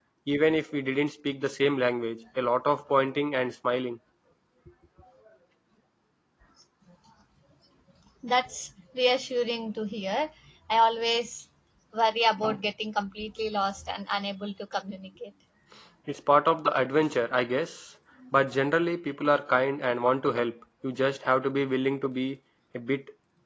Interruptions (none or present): none